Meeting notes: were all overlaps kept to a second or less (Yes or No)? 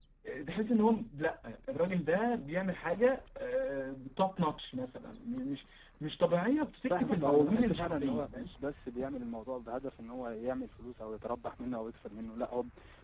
No